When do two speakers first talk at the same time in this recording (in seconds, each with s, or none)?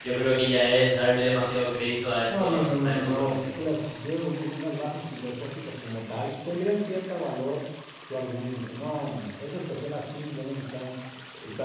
2.3 s